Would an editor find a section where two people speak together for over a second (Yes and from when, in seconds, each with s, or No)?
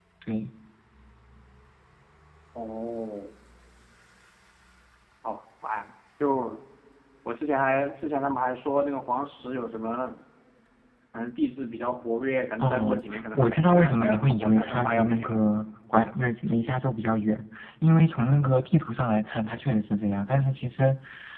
Yes, from 12.6 s